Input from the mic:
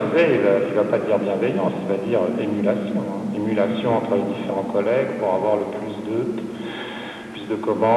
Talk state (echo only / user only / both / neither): echo only